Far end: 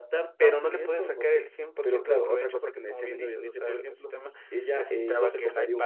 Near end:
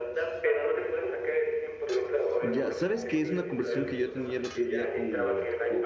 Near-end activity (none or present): present